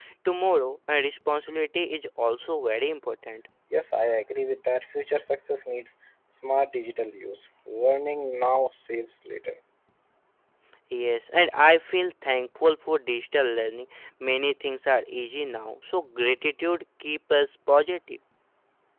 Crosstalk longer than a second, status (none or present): none